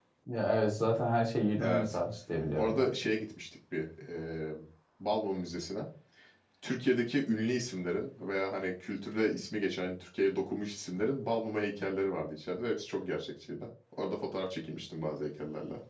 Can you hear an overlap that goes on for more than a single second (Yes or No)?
No